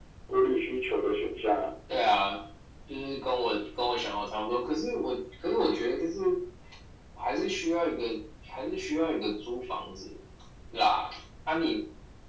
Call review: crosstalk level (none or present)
none